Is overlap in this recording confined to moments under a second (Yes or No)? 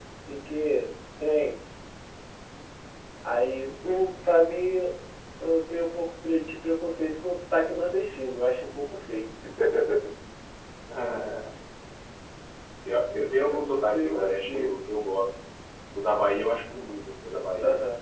No